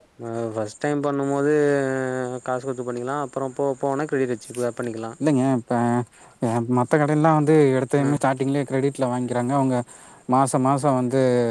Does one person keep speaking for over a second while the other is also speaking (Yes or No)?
No